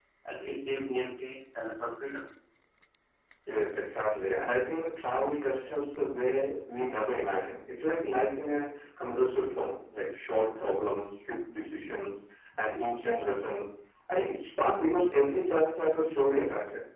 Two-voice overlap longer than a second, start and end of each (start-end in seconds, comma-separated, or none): none